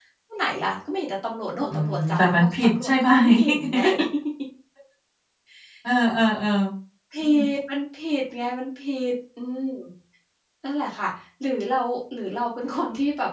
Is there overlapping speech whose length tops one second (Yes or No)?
Yes